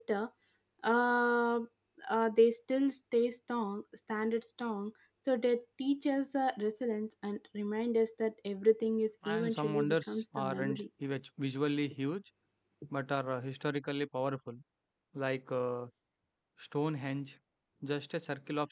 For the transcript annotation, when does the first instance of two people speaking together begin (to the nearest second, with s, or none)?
9 s